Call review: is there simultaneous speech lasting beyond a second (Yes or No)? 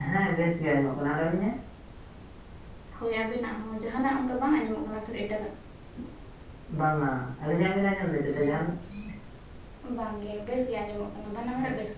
No